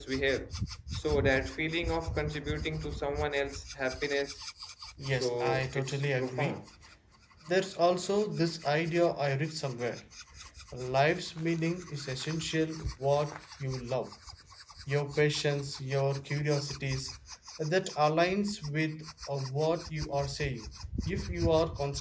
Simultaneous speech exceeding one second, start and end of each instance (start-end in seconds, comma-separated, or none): 5.1-6.6